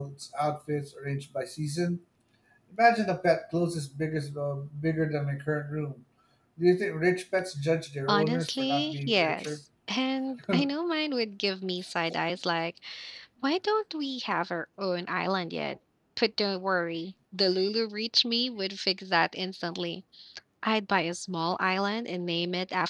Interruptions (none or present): present